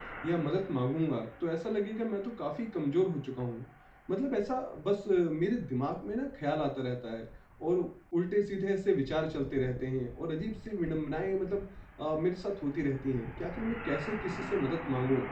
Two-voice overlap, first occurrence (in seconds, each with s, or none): none